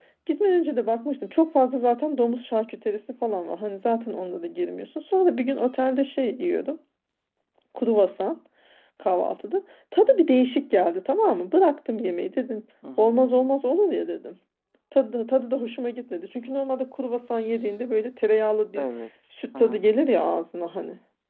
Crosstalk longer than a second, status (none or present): none